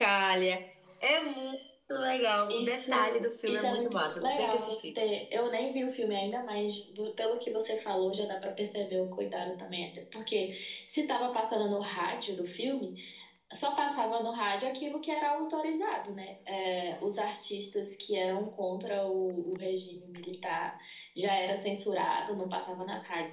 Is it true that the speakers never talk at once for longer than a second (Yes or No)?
No